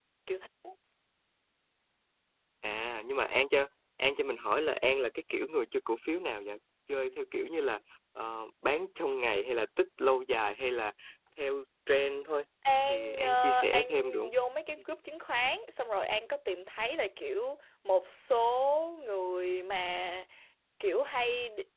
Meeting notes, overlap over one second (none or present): present